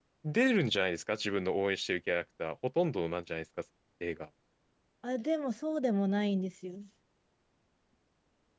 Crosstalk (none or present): none